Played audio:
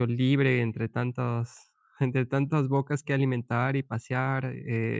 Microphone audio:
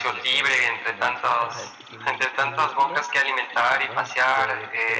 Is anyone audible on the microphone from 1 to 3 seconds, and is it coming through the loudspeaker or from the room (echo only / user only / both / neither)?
both